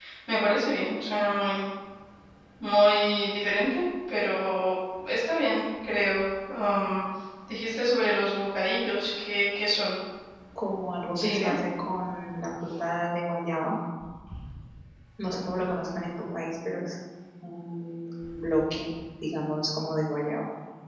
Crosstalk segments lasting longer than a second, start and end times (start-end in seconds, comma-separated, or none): none